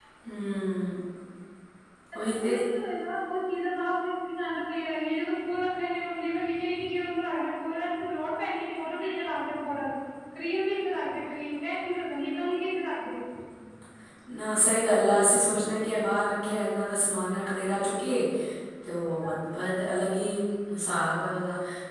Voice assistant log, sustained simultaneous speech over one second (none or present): none